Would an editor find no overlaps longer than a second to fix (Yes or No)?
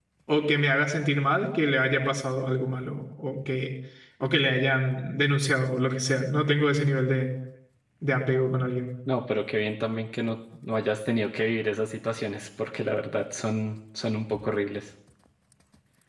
Yes